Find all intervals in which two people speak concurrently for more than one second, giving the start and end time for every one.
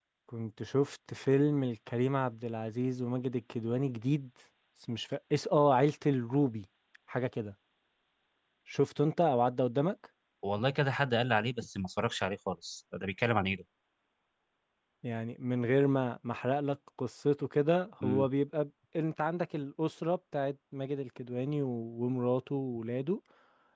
none

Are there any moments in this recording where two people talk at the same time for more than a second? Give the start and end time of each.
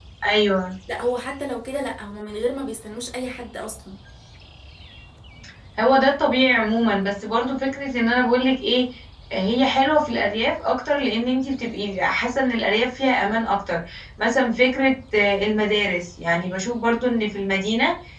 none

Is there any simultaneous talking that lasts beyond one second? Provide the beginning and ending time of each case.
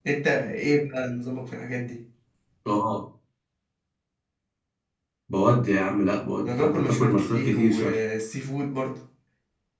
6.4-8.0

